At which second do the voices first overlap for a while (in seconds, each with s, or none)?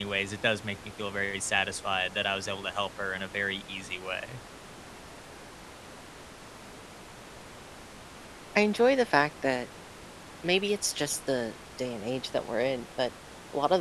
none